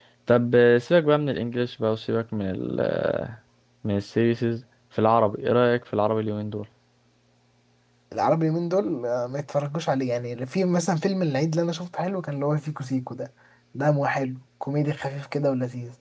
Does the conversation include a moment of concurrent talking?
No

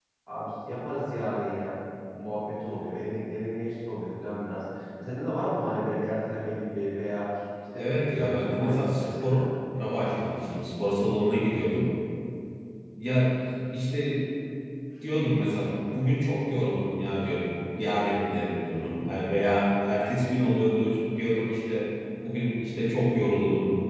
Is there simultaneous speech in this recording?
Yes, from 7.8 s

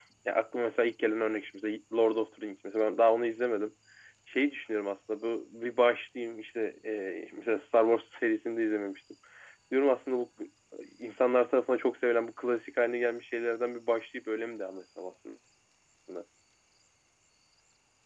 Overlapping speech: No

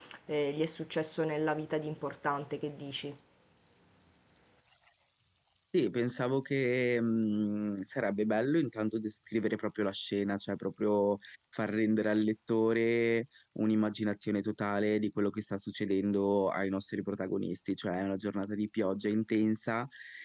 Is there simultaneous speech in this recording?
No

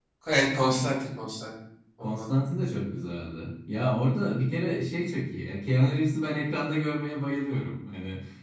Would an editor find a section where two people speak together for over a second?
No

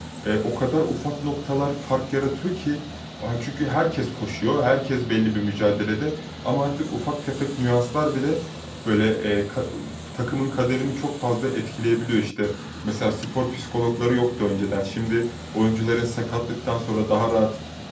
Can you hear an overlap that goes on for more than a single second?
No

